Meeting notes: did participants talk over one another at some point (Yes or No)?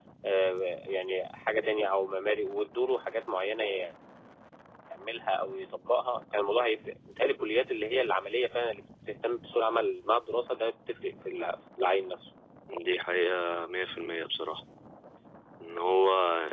No